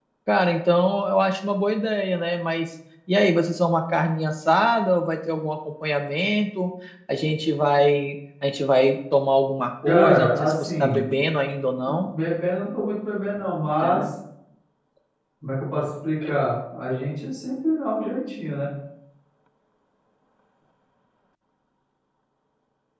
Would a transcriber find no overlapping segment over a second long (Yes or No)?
No